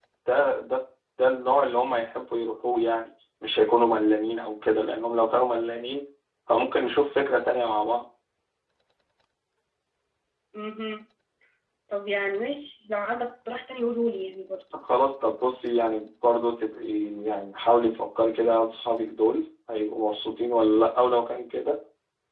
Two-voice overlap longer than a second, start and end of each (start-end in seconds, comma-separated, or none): none